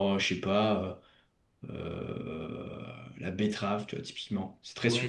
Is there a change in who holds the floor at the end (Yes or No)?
Yes